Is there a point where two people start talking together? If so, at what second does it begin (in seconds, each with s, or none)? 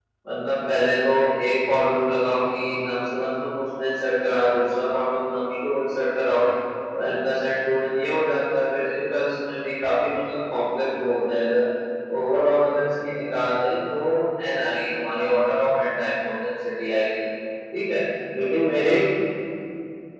none